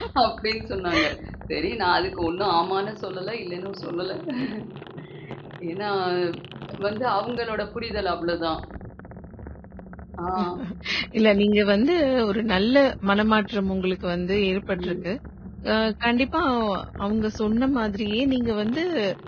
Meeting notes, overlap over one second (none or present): none